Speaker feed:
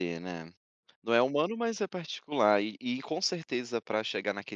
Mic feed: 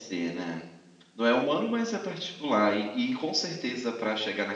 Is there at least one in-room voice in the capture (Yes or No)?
No